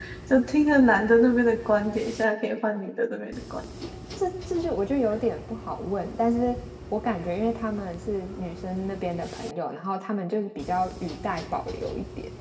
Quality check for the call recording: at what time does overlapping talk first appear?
none

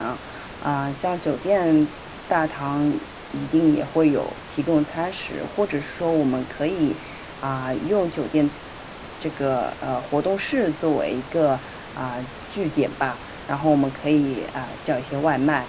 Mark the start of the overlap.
none

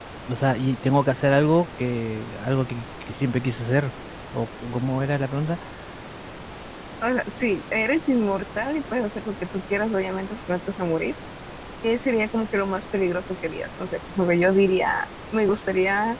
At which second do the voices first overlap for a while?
none

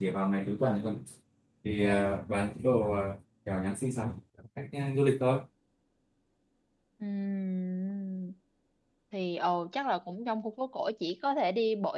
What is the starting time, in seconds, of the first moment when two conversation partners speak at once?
none

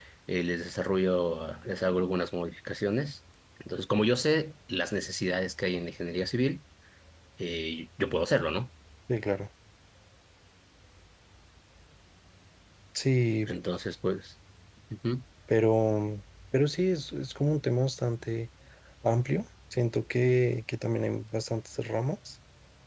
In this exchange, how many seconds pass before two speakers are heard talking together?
none

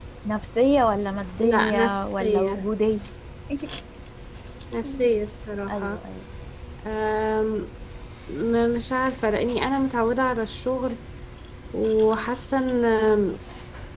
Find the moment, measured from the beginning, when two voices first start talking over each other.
1.4 s

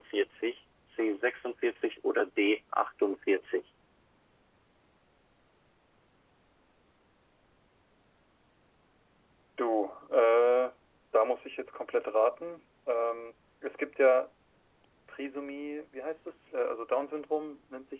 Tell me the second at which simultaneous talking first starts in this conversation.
none

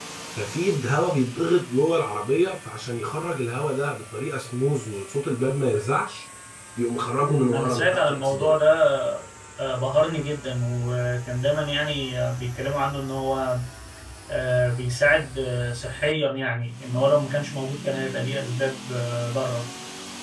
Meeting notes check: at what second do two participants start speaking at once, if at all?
7.2 s

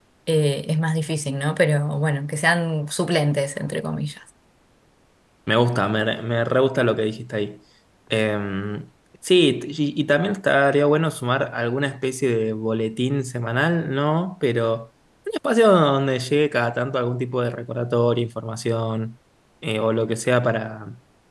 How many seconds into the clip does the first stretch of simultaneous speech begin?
none

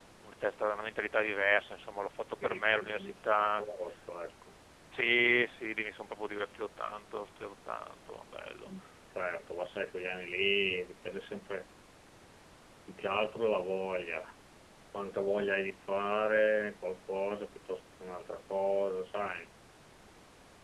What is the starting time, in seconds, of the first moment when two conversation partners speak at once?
2.4 s

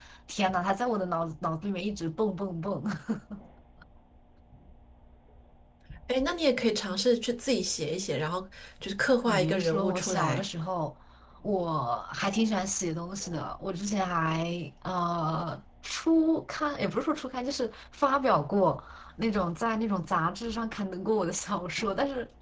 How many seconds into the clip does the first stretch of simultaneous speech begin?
9.3 s

